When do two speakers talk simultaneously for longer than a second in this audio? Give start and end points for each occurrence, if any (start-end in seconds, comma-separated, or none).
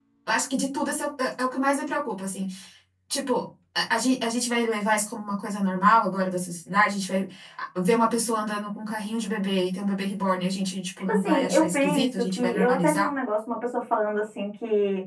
11.1-13.1